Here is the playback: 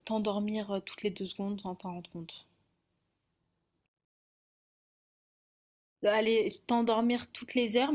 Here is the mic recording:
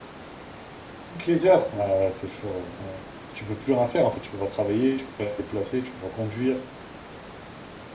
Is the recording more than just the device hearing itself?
Yes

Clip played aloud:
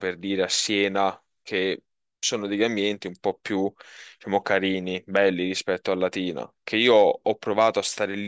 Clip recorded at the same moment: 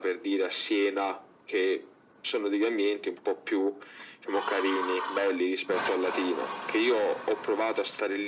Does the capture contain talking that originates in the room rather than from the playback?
No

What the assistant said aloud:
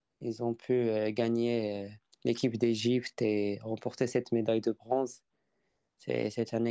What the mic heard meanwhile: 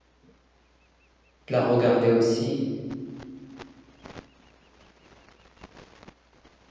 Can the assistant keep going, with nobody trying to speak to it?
No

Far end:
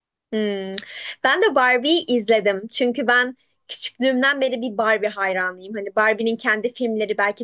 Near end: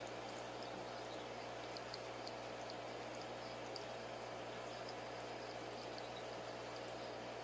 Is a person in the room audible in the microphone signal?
No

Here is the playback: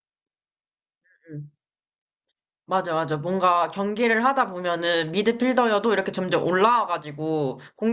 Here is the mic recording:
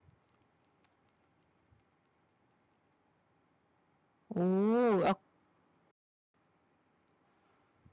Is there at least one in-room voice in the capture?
Yes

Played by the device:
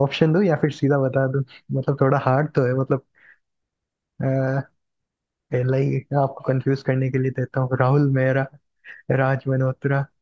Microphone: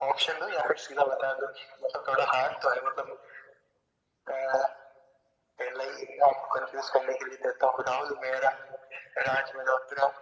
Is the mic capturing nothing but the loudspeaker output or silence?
Yes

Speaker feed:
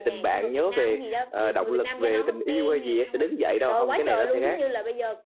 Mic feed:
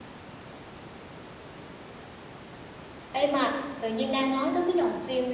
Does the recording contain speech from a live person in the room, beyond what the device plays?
Yes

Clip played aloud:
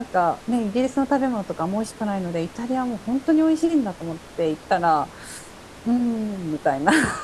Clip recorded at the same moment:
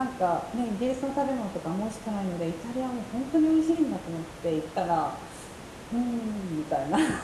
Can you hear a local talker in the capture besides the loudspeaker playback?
No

